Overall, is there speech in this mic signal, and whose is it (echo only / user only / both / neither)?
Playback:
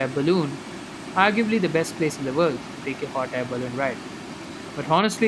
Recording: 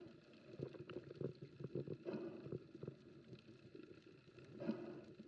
neither